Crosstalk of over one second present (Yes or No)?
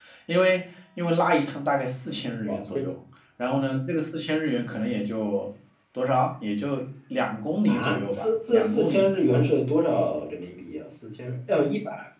Yes